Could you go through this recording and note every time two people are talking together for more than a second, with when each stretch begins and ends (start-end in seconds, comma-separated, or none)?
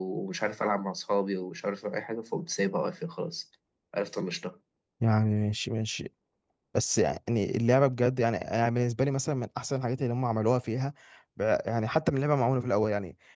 none